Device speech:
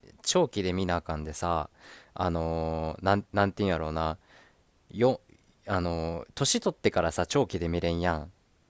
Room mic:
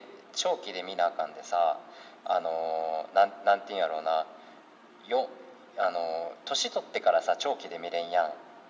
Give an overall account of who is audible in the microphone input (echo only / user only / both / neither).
echo only